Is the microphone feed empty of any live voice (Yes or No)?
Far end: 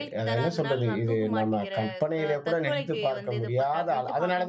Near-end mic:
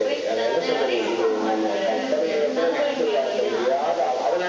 No